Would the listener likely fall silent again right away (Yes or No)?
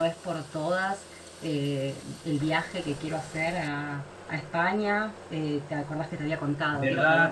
No